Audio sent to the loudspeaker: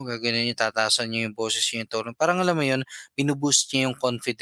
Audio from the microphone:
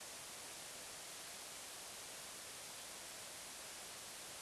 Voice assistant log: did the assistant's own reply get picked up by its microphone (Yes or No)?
No